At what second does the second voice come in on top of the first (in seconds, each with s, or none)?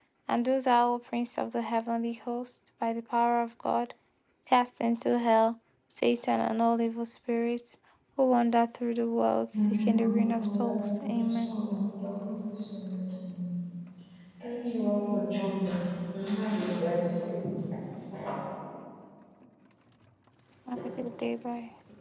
9.5 s